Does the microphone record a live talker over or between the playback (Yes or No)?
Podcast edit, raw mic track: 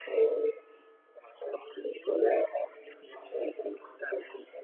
No